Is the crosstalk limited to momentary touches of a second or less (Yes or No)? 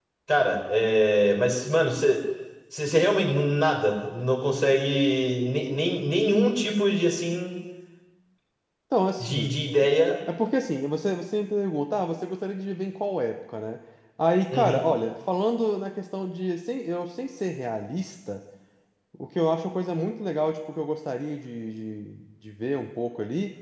Yes